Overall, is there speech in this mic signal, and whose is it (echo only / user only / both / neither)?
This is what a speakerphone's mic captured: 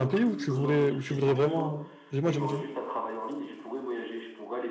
both